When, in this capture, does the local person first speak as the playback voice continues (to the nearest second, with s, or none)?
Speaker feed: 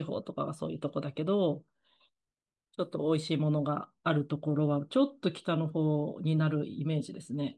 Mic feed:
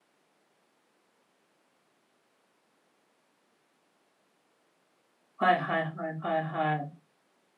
5 s